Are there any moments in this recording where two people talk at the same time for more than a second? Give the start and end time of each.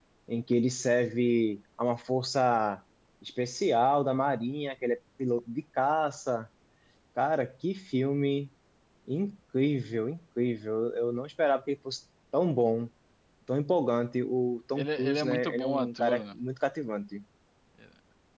14.8-16.2

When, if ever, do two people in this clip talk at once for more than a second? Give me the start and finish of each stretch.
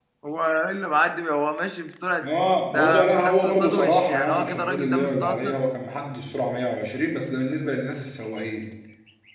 2.7-5.6

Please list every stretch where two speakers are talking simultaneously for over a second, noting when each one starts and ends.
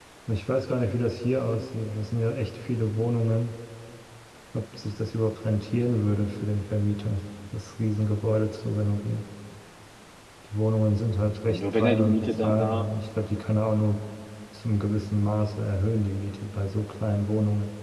11.4-12.9

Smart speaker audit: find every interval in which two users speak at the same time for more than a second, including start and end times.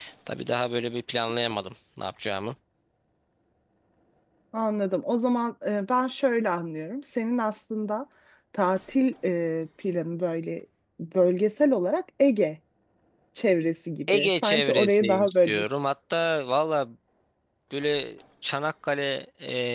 14.1-15.6

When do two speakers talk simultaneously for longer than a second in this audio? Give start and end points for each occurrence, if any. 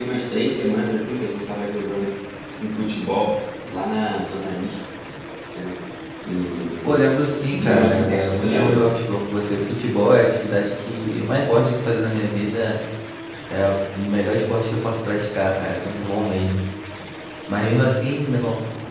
7.5-8.8

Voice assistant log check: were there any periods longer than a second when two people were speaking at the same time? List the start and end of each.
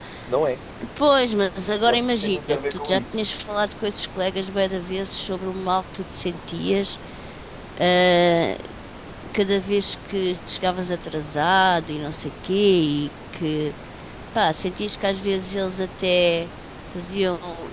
1.9-3.2

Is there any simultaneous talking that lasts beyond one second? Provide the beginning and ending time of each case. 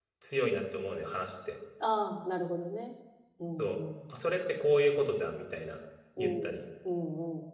none

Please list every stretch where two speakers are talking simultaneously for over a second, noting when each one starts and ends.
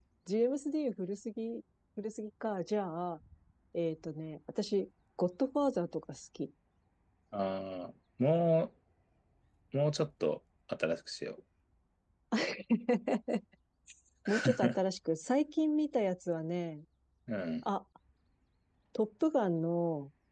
none

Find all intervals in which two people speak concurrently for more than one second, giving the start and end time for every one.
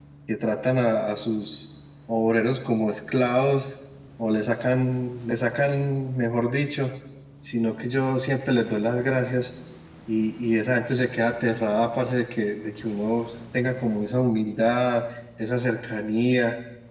none

